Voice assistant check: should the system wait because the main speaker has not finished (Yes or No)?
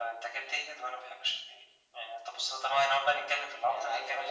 No